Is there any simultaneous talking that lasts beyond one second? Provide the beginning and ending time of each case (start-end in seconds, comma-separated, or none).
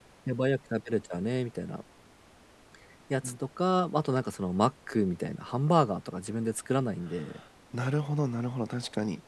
none